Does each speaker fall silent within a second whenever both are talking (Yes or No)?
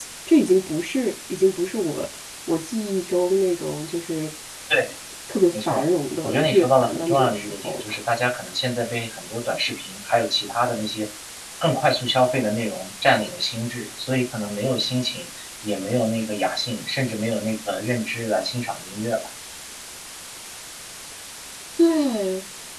No